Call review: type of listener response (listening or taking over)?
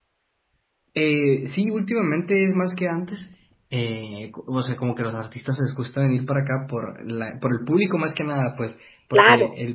listening